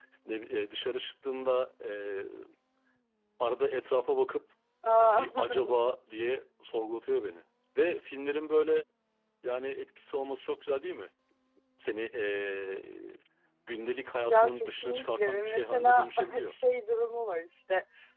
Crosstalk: present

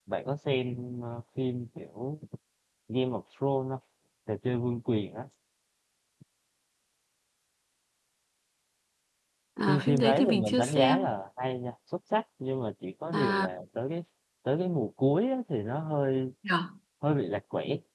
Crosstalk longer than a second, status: present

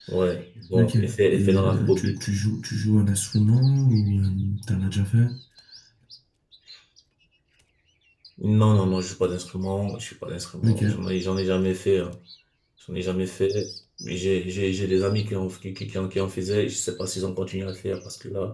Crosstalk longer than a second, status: present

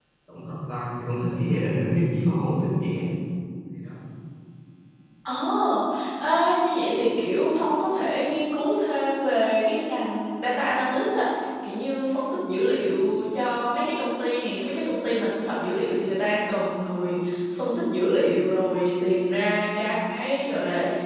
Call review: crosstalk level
none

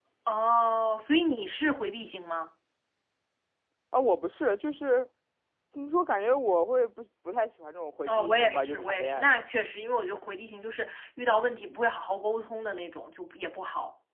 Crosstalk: present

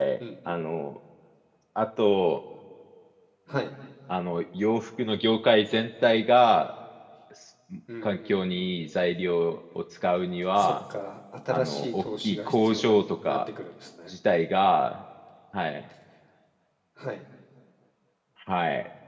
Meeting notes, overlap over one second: present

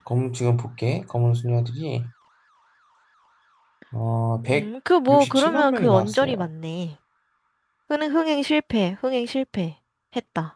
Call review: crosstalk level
present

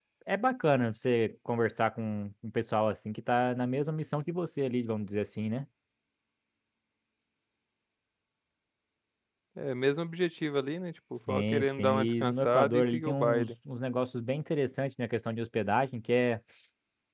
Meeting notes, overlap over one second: present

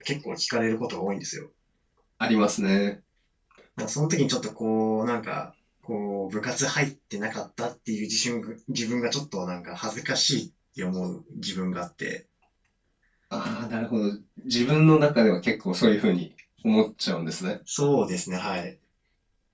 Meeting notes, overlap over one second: none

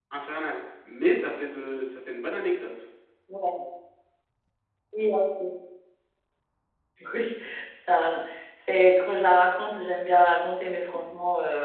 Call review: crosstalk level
none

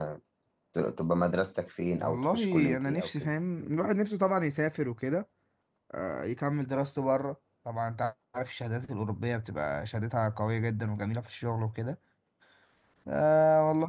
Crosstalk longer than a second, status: present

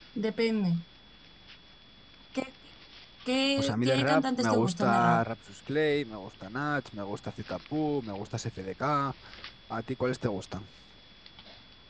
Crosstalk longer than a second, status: present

